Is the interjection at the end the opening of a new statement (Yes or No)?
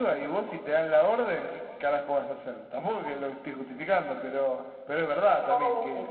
Yes